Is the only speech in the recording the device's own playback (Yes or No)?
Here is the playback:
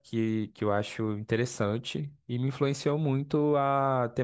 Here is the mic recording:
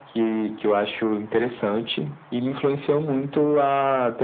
Yes